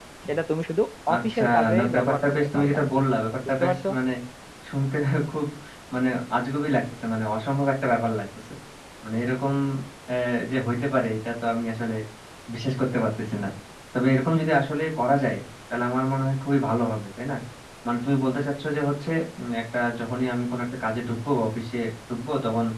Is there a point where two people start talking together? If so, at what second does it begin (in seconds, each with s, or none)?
1.1 s